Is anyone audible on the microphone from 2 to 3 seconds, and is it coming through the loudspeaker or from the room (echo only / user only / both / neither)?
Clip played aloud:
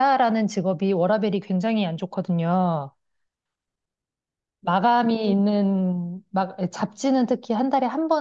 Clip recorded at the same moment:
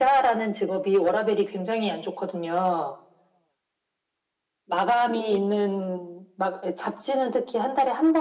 echo only